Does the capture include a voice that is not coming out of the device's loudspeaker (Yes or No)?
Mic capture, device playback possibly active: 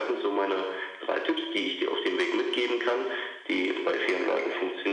No